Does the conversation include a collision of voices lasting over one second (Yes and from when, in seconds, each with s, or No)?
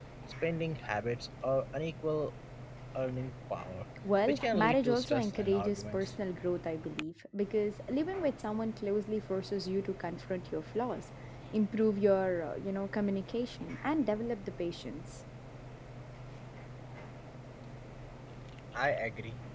Yes, from 4.3 s